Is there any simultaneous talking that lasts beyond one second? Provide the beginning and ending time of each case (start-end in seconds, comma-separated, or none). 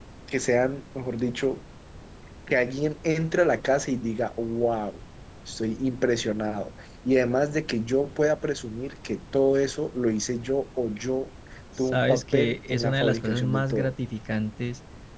11.8-13.9